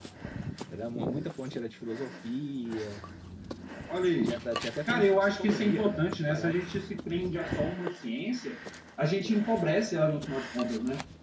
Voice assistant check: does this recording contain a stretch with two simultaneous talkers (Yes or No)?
Yes